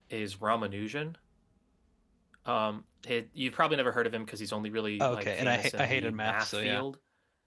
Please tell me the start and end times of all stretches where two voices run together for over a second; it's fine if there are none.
5.0-6.8

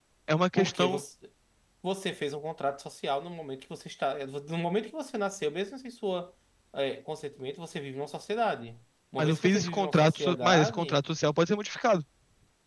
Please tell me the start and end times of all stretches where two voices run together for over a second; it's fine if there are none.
9.2-11.0

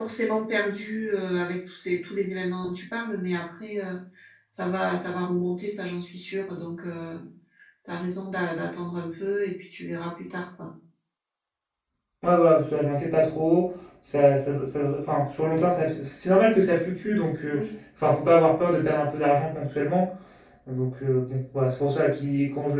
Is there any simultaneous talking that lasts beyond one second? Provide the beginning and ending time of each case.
none

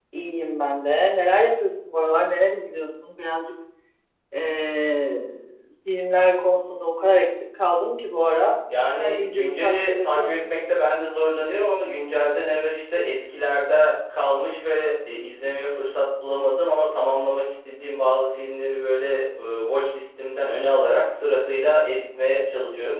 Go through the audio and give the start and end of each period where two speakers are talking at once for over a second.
9.0-10.6

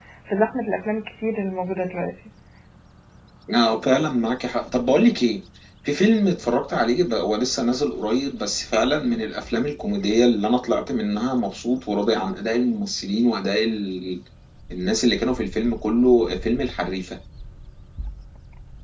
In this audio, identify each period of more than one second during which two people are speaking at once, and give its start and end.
none

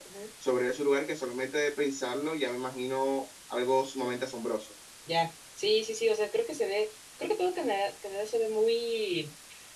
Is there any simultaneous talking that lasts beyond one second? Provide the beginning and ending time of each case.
none

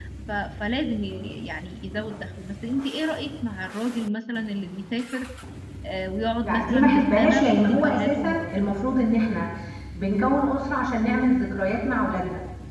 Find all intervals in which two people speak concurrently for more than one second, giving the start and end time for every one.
6.4-8.6

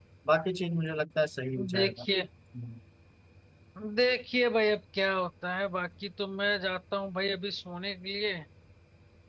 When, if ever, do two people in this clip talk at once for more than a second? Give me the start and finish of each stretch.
none

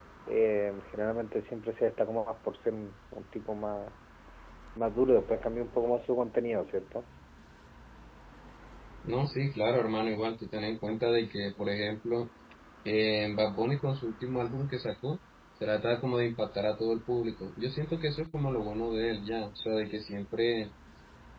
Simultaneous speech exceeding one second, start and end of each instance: none

